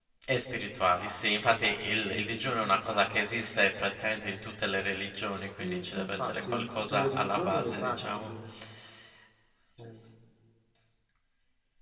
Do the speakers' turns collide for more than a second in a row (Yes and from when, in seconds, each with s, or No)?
Yes, from 5.6 s